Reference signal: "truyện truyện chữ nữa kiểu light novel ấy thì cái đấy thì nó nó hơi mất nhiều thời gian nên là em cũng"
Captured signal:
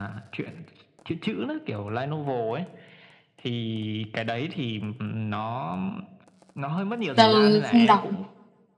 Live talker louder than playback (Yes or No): Yes